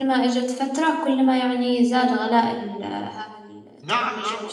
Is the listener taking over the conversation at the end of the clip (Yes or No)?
Yes